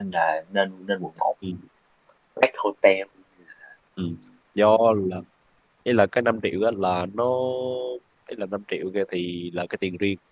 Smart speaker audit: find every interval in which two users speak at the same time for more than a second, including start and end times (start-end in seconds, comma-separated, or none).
none